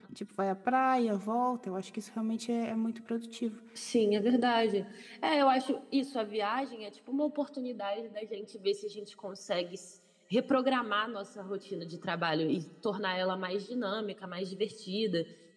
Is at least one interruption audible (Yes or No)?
No